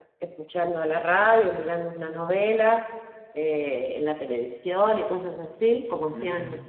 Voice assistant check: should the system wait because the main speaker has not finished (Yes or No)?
No